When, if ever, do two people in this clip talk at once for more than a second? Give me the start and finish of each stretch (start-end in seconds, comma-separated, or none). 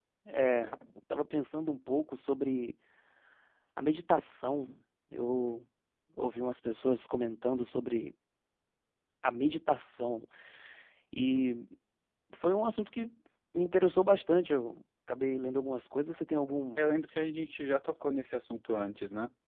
none